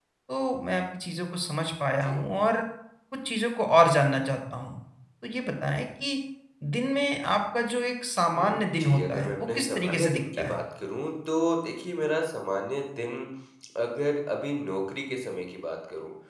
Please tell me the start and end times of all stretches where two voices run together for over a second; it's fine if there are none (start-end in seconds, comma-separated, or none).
8.4-10.6